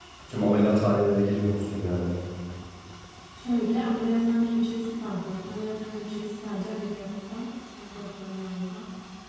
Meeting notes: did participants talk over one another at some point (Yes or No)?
No